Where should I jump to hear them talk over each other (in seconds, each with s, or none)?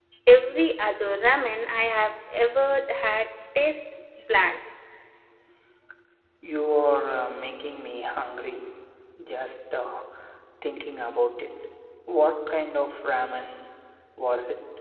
none